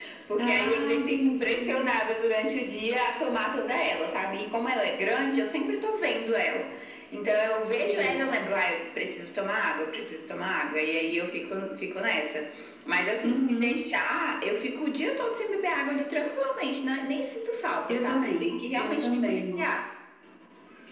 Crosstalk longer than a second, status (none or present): present